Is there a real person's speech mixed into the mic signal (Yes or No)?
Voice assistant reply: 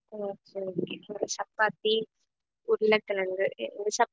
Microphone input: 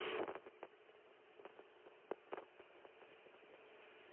No